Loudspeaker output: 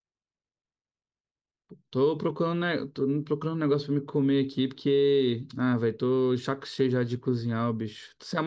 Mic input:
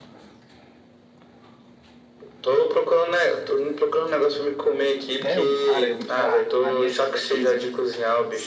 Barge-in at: 5.2 s

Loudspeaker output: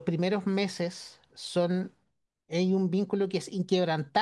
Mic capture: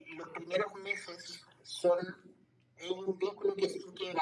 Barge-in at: none

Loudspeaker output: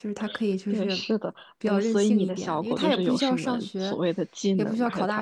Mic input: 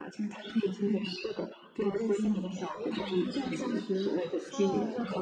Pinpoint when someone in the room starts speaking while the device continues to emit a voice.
2.8 s

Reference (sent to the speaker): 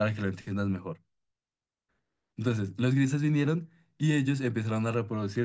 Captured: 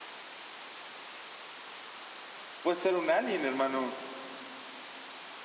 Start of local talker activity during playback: 2.6 s

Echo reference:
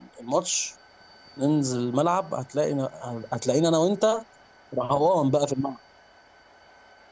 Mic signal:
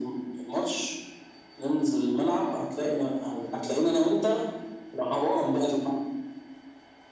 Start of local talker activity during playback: none

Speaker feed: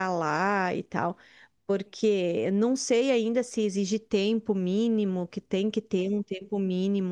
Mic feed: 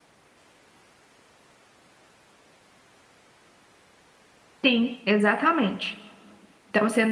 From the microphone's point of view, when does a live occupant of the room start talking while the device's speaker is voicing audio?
4.6 s

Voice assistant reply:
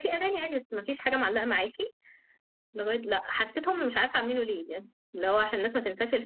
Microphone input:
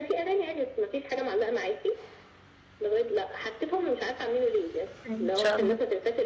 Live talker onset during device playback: 5.1 s

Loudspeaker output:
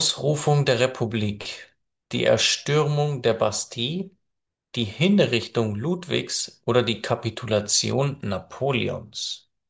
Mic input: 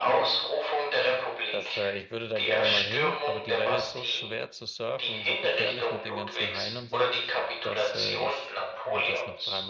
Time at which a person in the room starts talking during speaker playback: 1.5 s

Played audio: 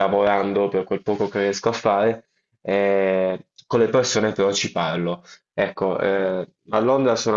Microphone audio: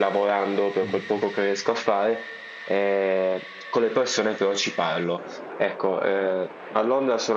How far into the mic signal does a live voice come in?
0.8 s

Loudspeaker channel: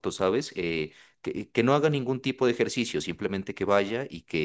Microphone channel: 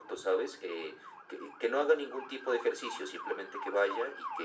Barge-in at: none

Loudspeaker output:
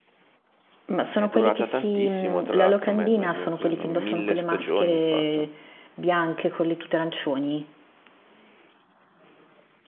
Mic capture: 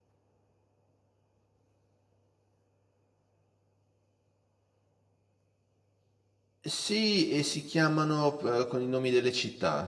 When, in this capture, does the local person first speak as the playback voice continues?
6.7 s

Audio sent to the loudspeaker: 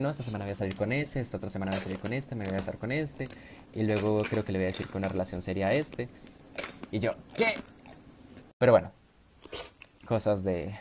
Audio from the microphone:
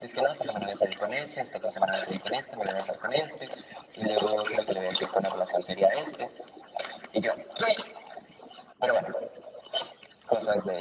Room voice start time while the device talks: none

